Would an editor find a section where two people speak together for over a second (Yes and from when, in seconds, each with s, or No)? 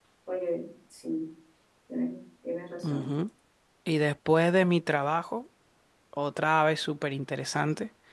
No